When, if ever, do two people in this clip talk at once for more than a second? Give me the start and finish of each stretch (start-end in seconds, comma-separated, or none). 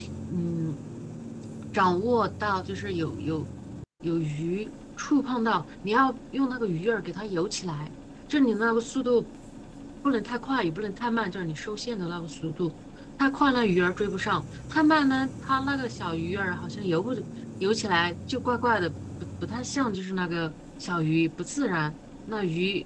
none